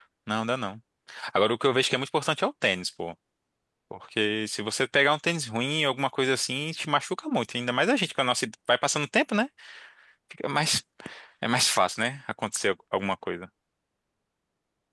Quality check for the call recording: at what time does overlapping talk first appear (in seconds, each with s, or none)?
none